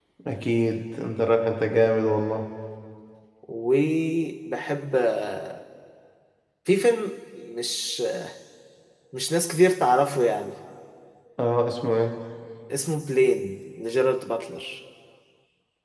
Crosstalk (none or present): none